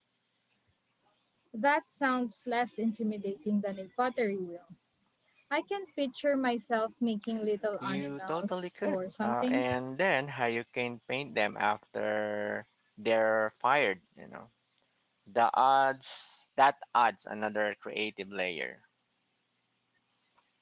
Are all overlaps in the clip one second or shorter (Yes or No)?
No